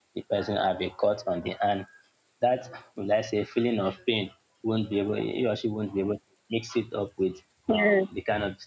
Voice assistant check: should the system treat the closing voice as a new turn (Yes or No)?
No